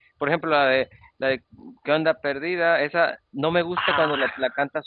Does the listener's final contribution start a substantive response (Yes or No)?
No